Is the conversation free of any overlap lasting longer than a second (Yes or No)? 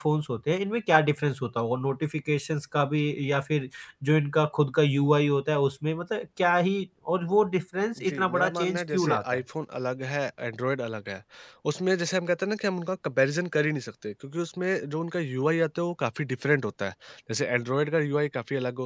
No